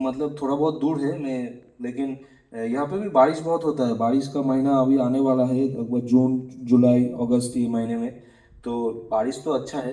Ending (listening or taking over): listening